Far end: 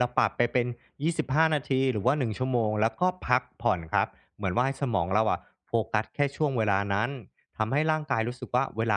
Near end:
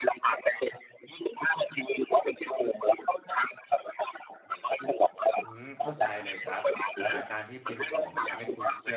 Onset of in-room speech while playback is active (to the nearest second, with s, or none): 5 s